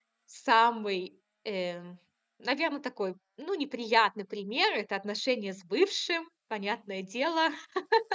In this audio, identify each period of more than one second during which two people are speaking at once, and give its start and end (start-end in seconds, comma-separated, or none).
none